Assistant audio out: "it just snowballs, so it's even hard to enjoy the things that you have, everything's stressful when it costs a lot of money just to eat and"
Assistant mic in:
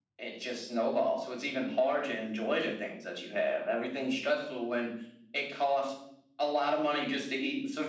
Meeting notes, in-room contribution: none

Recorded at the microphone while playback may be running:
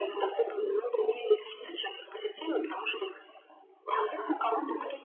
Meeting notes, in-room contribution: none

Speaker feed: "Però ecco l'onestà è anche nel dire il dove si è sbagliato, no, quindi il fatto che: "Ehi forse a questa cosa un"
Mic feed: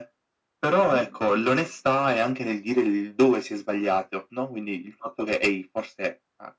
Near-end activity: present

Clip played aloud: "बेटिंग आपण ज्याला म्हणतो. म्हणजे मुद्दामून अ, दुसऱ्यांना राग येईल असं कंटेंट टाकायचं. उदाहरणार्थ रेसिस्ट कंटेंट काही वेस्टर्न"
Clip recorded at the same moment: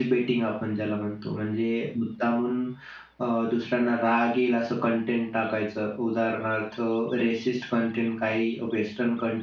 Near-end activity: none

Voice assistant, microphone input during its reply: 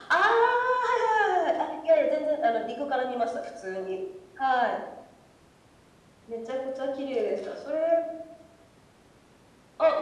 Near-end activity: none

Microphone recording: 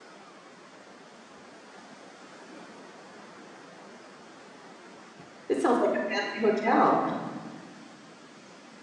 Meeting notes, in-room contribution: present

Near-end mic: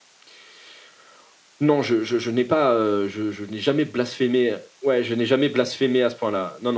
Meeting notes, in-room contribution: none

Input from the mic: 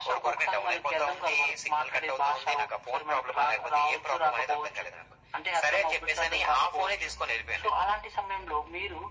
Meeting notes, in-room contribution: none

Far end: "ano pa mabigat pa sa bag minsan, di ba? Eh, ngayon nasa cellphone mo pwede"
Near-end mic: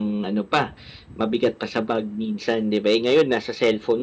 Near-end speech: none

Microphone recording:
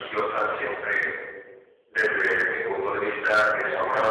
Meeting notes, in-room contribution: none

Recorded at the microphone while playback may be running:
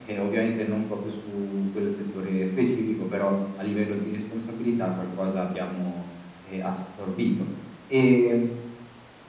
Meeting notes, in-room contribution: none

